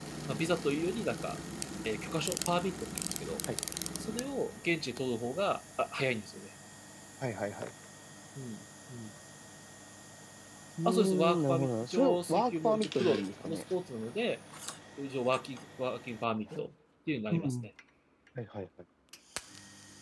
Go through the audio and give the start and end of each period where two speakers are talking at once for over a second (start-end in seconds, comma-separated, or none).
10.8-13.6